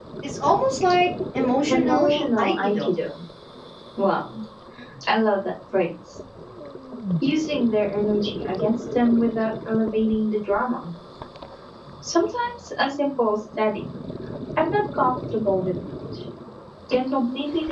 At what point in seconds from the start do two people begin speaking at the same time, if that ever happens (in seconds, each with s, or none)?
1.6 s